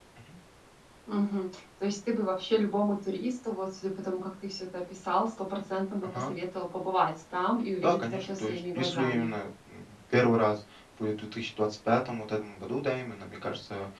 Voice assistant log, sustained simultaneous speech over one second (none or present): present